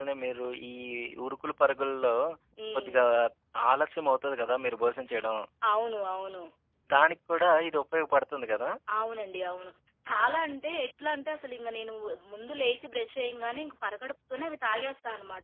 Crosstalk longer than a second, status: none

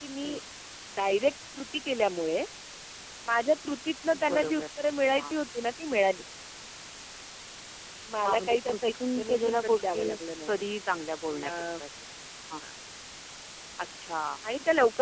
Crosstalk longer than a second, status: present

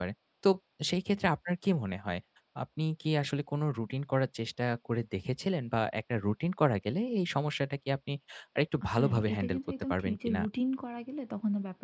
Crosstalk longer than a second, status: present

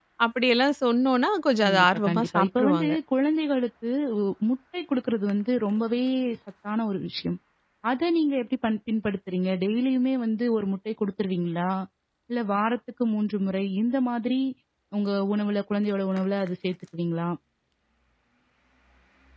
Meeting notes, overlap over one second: present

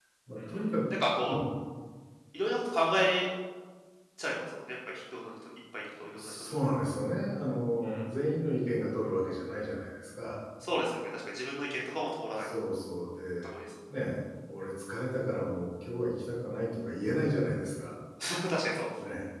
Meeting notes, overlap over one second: none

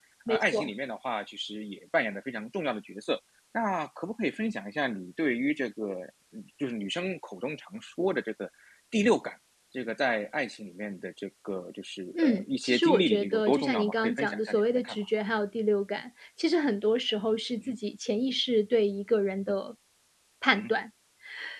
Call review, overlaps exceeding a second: present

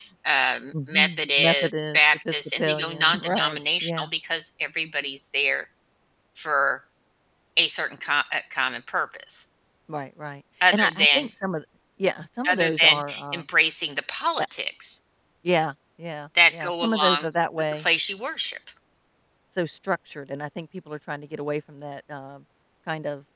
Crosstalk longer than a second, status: present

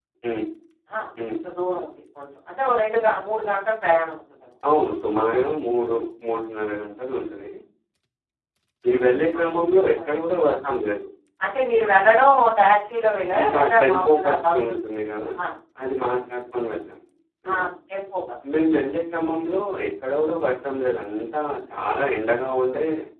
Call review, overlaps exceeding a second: present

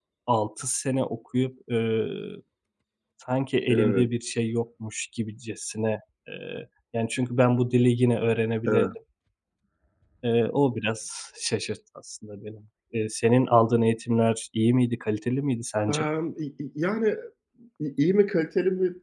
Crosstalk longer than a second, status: none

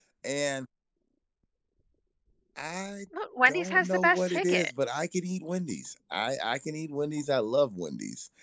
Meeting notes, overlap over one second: present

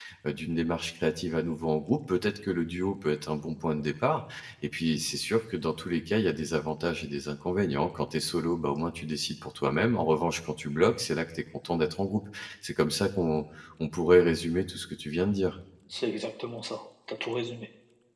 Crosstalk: none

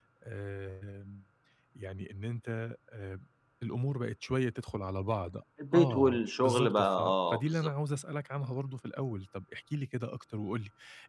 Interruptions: present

